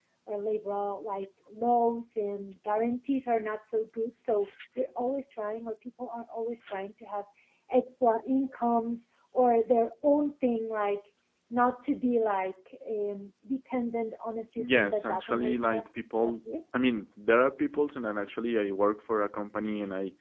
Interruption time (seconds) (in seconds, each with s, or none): 14.6 s